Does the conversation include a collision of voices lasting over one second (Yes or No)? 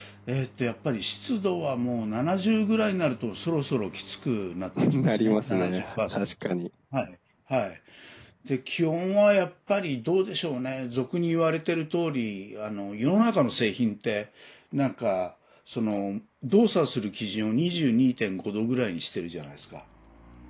Yes